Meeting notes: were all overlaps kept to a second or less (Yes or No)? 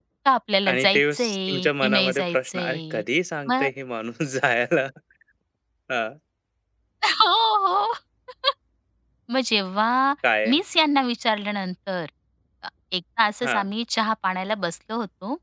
No